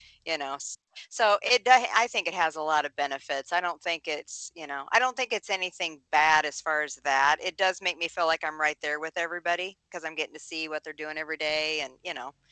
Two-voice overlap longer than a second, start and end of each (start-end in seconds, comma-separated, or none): none